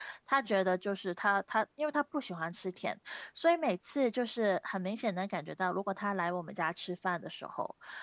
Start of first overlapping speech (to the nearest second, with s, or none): none